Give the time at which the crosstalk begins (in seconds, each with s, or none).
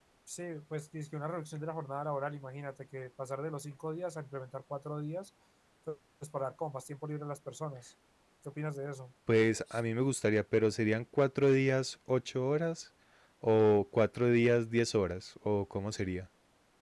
none